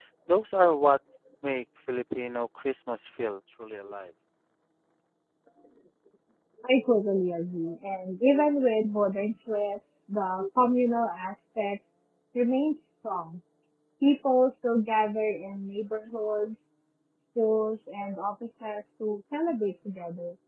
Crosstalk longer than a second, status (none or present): none